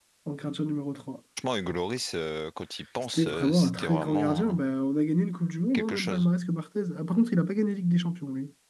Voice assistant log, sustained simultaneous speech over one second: present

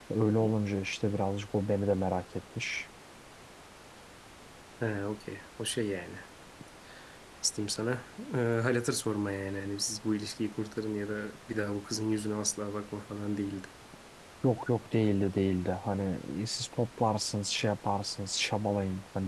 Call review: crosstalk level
none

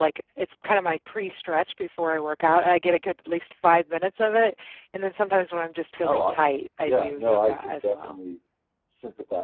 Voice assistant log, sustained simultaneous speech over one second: present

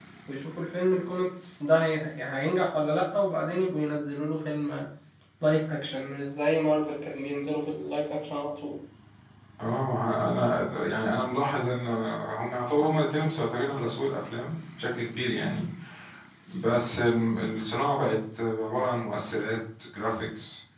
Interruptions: none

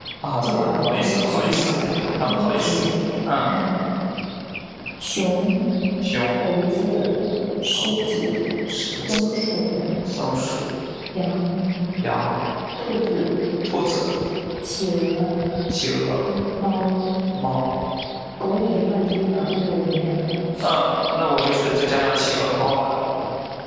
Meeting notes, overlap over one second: present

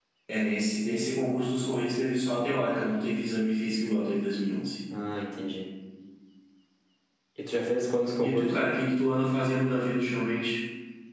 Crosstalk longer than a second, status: none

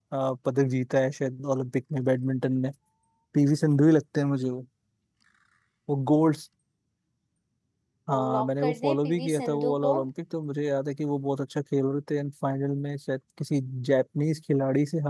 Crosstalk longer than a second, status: present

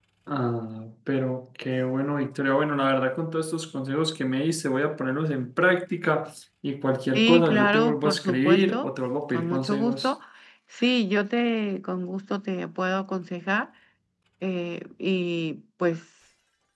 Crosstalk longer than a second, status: present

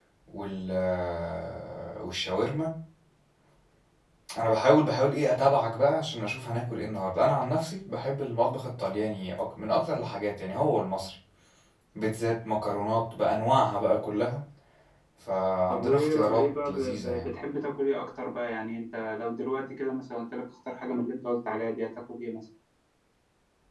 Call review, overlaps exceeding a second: present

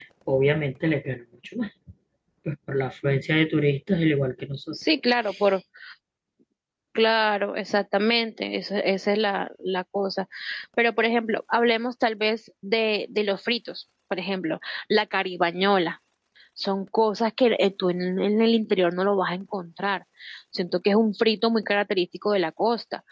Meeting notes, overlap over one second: none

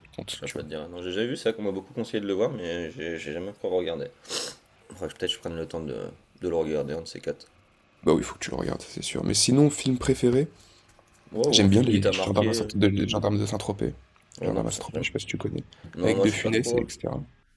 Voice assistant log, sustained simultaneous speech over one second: present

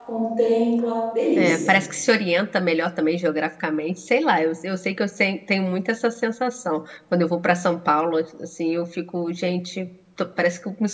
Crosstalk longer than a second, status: none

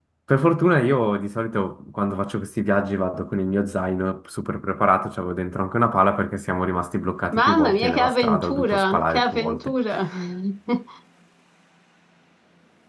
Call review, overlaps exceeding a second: present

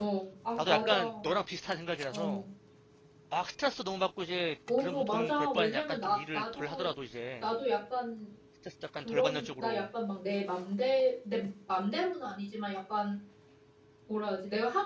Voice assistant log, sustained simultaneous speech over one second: present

